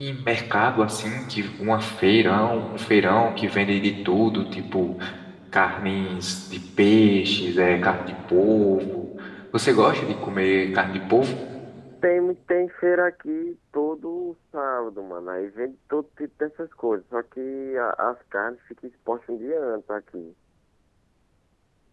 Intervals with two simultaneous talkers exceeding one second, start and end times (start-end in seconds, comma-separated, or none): none